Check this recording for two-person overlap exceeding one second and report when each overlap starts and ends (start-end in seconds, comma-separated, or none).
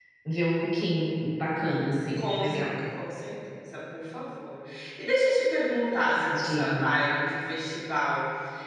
none